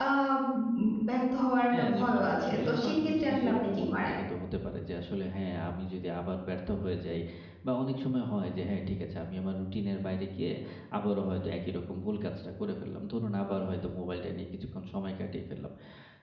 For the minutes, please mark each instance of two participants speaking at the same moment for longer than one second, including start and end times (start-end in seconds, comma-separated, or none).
1.8-4.1